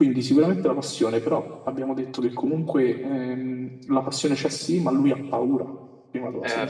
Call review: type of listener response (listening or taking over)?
taking over